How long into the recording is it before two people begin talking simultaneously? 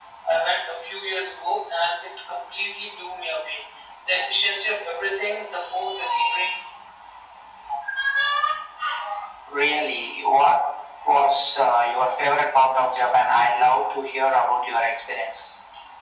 none

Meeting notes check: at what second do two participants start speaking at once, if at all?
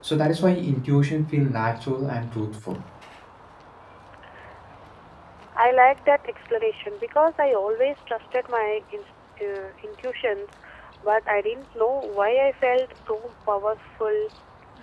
none

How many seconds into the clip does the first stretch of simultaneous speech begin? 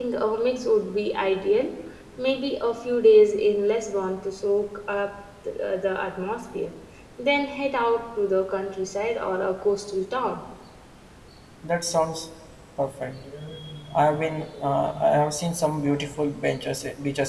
none

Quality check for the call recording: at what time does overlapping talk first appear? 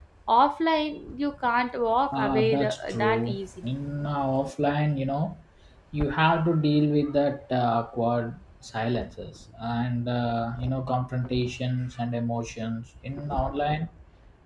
2.1 s

